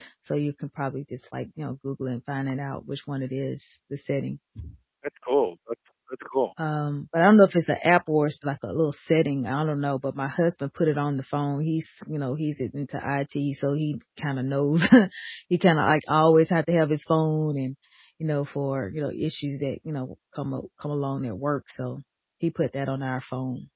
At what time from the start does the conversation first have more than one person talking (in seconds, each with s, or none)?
none